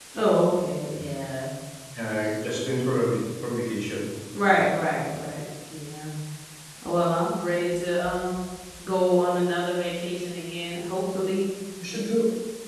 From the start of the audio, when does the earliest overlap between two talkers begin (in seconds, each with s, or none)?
none